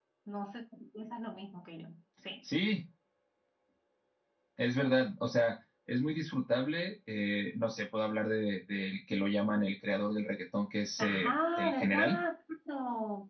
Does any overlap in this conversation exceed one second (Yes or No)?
Yes